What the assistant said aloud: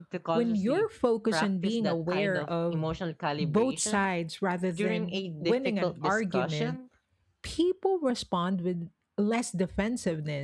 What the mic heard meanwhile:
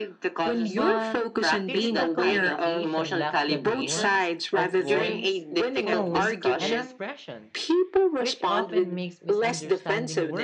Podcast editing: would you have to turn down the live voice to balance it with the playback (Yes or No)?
No